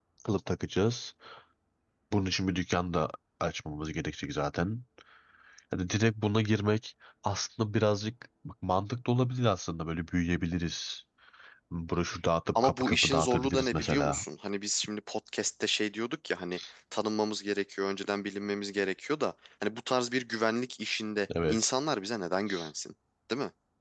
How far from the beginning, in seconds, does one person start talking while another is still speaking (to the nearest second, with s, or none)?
13 s